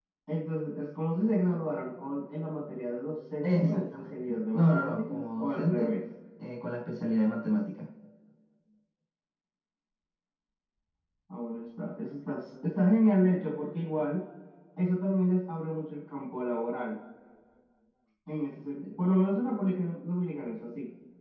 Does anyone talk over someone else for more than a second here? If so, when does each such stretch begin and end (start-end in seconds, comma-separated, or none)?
3.4-5.9